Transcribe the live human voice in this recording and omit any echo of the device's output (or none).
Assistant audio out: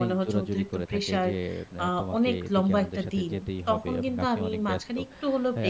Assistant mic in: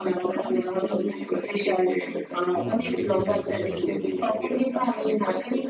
হুম, এটা কিন্তু বেশ ভালো ব্যাপার।